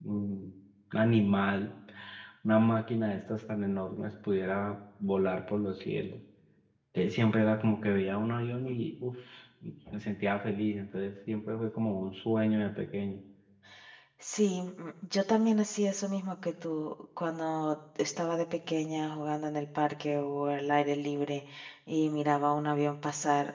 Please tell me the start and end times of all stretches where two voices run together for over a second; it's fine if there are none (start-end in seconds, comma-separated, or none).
none